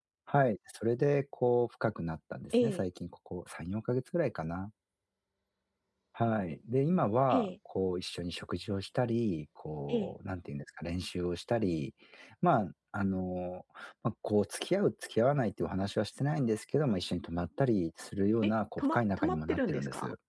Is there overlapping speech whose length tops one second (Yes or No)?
Yes